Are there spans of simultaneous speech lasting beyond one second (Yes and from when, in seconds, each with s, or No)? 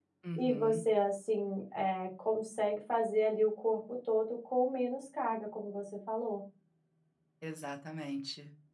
No